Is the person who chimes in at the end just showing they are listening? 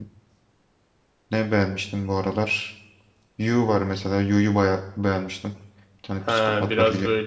No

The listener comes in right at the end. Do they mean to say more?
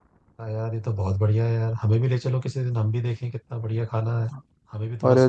Yes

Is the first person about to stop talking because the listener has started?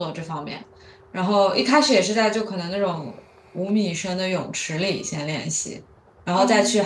No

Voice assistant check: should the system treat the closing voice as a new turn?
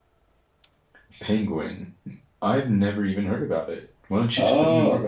Yes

